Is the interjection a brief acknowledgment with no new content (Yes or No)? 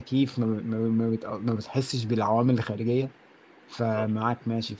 Yes